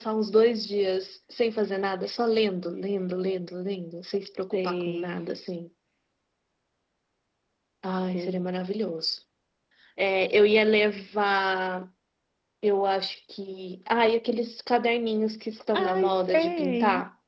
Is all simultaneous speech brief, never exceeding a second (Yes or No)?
No